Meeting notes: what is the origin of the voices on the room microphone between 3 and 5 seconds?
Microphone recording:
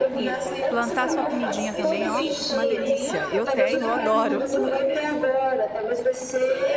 both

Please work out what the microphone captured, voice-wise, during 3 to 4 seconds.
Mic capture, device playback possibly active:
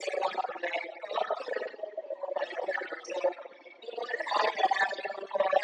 echo only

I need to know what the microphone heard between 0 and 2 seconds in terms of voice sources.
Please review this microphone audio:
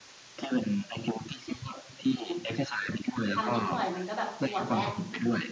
echo only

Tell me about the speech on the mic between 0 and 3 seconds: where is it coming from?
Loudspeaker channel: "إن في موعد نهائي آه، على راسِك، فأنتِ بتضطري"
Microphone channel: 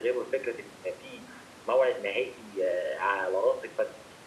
echo only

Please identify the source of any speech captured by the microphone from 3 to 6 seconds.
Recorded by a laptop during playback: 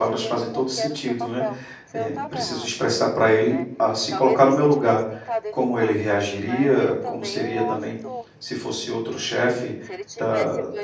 both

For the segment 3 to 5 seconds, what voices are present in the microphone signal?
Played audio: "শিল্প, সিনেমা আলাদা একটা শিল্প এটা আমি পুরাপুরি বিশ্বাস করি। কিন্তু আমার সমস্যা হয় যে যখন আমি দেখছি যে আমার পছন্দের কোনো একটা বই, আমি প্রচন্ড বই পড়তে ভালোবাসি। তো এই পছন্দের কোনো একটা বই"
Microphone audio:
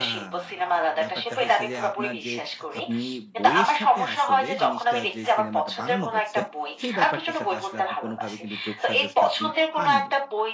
both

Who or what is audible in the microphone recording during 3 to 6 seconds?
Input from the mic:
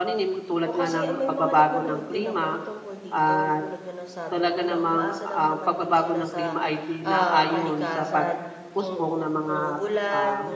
both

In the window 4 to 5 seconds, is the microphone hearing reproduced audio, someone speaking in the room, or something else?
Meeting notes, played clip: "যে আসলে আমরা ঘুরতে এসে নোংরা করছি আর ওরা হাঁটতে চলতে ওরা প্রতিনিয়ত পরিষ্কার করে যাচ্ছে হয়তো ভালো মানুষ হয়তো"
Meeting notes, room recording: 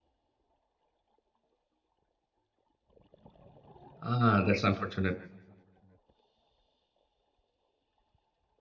user only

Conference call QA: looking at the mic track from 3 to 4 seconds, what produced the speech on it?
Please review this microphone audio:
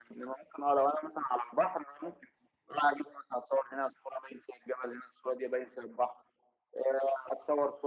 echo only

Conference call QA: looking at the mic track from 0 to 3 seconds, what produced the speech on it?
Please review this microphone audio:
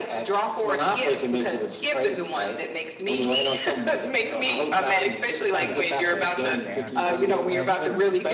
echo only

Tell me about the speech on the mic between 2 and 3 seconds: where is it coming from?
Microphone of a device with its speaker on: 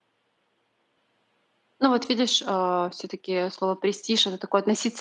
user only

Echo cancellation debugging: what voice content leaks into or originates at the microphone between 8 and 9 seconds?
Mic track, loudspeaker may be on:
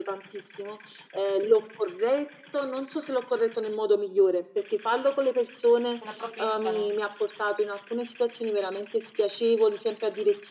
echo only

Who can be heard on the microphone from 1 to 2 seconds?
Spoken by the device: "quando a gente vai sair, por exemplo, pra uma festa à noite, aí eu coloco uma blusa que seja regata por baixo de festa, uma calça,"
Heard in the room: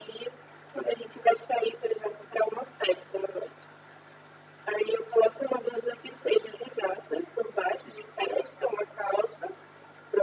echo only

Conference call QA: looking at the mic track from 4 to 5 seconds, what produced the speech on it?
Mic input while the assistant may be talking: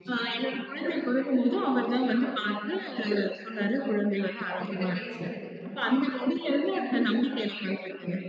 both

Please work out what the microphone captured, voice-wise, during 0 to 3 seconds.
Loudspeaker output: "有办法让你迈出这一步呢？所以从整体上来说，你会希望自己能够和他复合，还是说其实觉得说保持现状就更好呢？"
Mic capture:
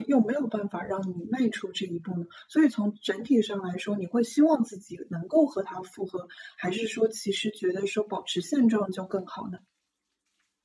echo only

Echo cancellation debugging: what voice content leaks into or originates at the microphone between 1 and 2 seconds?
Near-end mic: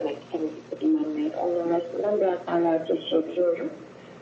echo only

